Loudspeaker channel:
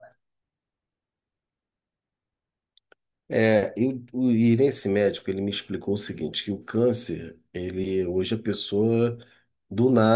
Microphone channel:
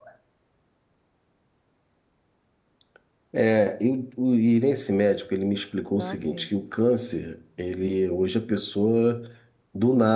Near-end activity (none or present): present